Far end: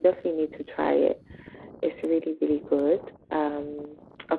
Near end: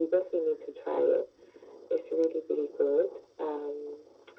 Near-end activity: none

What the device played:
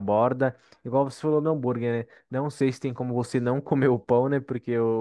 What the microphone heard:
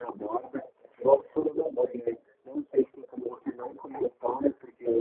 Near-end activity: none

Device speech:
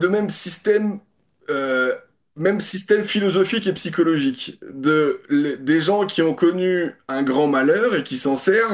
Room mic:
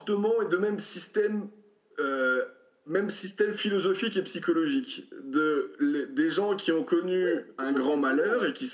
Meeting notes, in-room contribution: present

